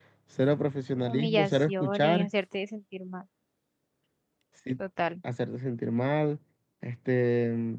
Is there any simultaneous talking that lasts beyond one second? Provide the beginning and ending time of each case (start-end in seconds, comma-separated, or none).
1.1-2.3